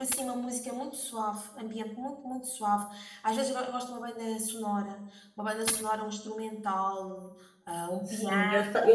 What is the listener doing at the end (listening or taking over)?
taking over